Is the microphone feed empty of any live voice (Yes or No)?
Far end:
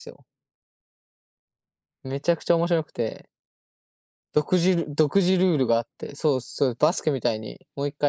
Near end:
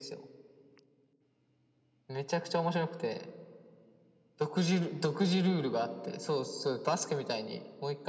Yes